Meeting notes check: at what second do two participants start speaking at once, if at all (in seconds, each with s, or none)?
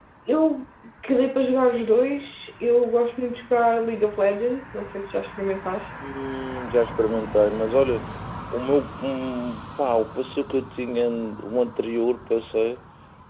none